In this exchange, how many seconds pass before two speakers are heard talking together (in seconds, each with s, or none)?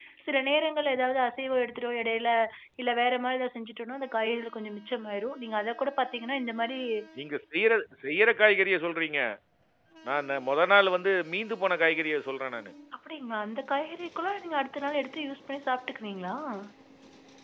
none